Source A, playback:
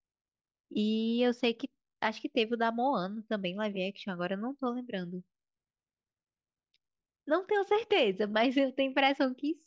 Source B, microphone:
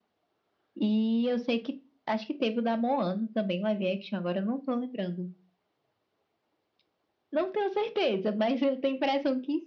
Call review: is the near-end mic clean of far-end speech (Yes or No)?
No